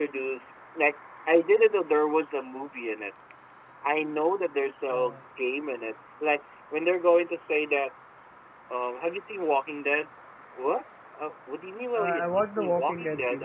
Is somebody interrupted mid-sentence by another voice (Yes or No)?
Yes